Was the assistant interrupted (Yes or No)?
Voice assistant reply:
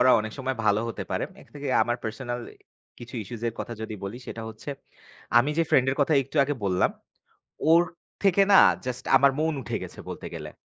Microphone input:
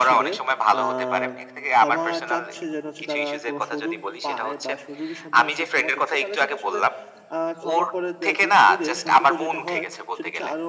Yes